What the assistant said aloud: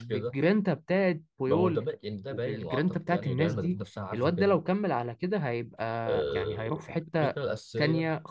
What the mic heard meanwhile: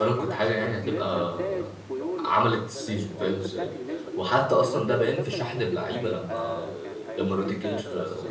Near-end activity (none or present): present